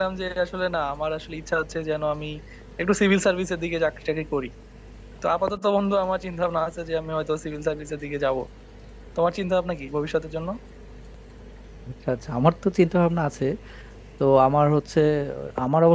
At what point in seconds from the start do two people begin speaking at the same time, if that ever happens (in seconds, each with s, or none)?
none